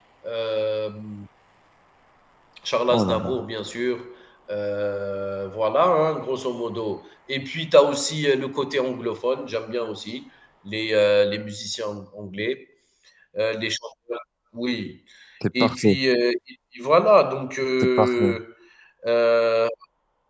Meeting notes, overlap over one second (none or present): none